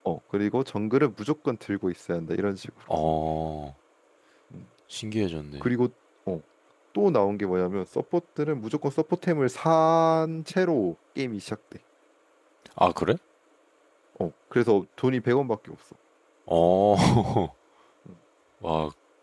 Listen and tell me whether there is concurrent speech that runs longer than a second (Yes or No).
No